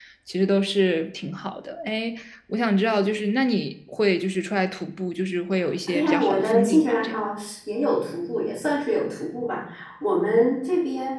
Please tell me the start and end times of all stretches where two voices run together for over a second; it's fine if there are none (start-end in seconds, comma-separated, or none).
5.9-7.2